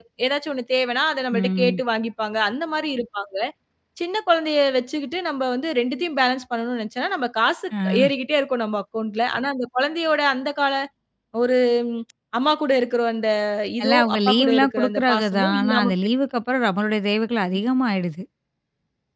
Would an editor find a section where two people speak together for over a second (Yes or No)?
Yes